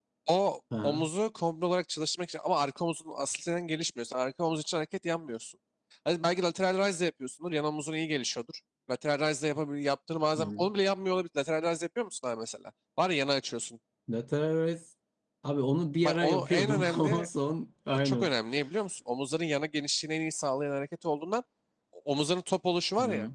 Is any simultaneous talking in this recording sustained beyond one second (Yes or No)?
Yes